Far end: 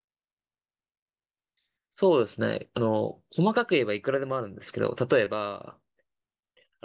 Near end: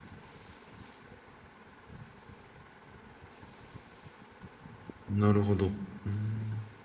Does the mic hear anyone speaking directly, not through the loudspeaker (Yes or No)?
Yes